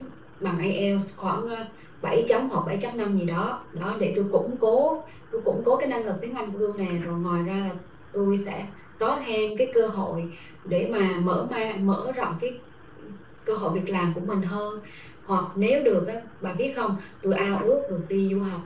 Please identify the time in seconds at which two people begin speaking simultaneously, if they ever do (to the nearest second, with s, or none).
none